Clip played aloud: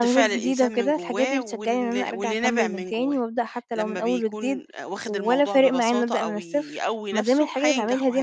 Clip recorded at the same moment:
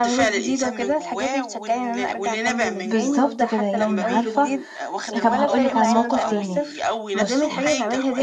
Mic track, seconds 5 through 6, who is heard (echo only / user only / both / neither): both